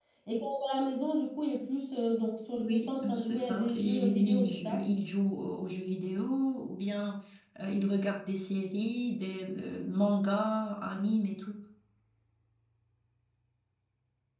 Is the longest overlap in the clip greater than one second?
Yes, from 2.6 s

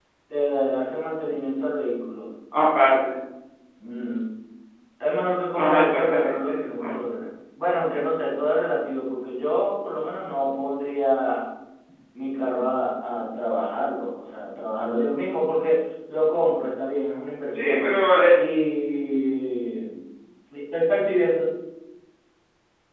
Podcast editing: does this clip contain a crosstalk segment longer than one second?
Yes, from 5.6 s

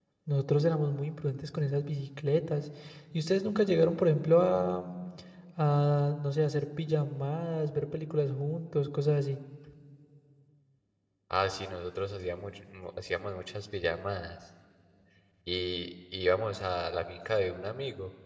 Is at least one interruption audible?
No

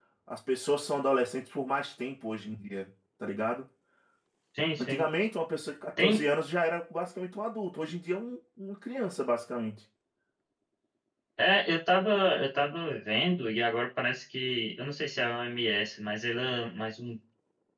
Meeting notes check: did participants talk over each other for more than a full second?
No

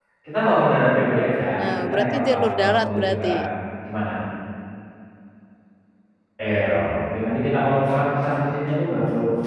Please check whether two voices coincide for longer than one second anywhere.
Yes, from 1.6 s

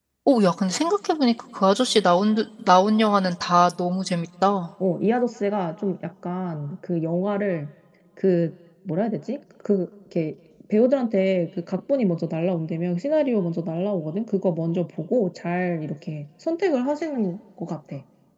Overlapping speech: No

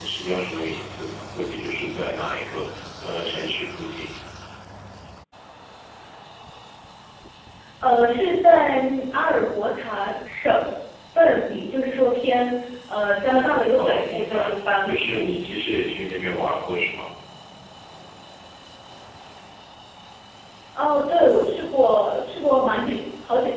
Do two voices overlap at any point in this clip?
Yes, from 13.3 s

